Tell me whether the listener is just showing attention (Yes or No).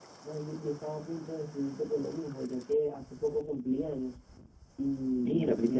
Yes